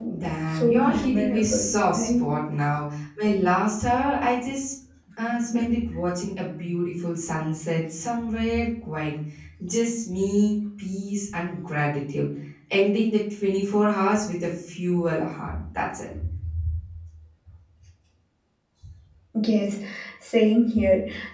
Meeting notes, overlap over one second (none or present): present